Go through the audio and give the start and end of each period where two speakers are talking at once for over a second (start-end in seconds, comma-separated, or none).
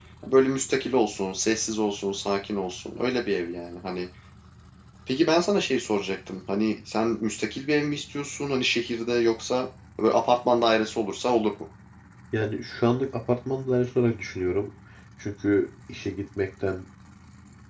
none